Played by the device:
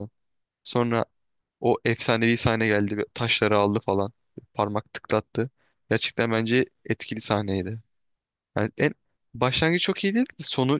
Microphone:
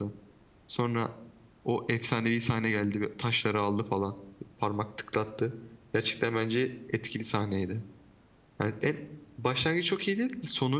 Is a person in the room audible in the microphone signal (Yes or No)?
No